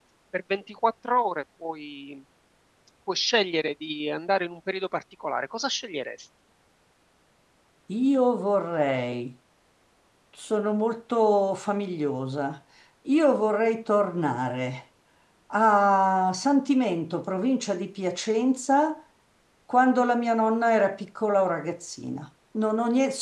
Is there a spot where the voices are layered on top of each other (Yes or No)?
No